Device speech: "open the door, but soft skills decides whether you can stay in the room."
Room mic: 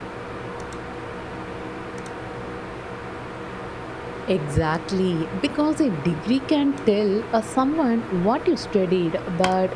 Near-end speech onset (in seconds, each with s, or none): 4.3 s